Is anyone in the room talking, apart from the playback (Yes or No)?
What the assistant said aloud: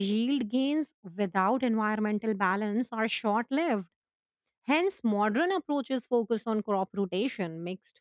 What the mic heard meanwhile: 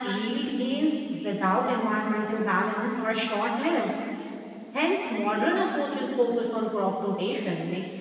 No